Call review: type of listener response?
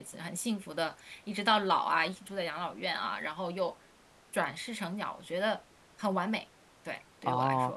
taking over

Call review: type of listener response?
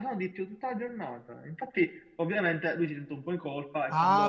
taking over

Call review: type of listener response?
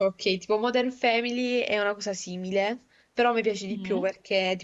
listening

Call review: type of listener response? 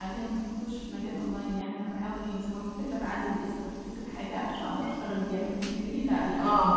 listening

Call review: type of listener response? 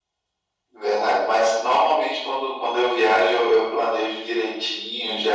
listening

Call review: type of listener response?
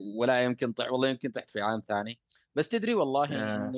listening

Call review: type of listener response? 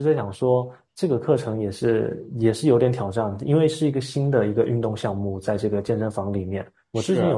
listening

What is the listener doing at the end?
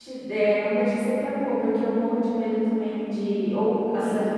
listening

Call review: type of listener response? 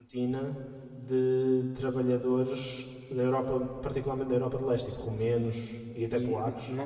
taking over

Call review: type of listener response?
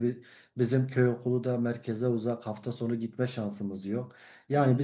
listening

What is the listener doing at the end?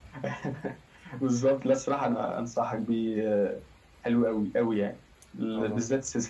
listening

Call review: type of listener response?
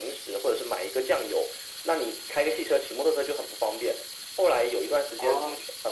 listening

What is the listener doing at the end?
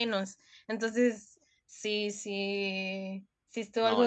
taking over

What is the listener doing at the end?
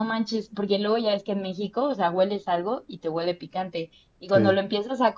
listening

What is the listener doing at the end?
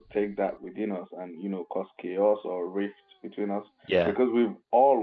listening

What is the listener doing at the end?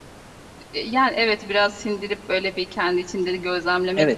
taking over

